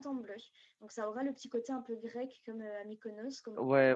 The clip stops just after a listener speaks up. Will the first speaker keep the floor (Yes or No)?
No